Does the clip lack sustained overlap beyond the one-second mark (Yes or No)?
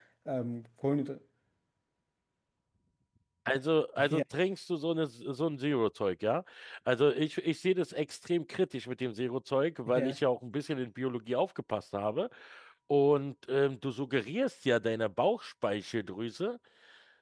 Yes